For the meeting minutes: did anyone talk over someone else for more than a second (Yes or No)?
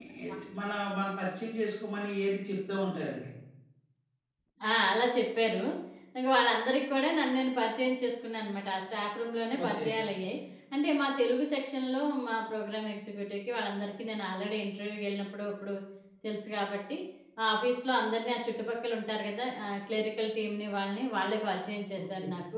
No